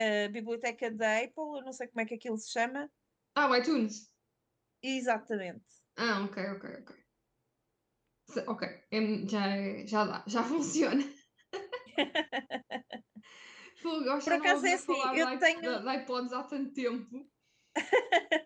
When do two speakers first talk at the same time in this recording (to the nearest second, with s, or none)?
14 s